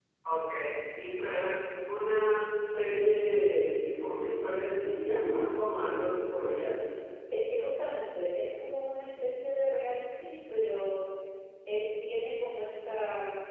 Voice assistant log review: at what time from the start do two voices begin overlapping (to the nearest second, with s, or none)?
none